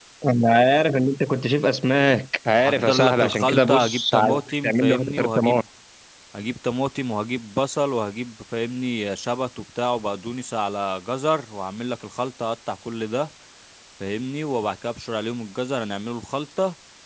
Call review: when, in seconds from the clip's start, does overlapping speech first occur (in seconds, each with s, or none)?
2.6 s